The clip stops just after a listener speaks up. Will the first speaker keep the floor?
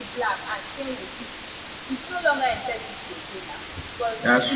Yes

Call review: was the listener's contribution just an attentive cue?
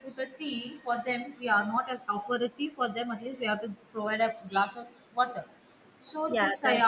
Yes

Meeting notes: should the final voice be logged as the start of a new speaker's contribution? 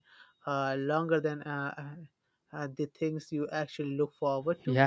Yes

